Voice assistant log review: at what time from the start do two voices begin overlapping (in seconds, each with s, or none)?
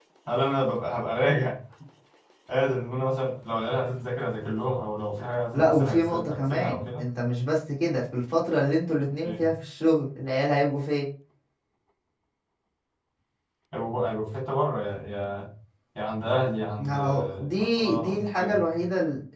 5.5 s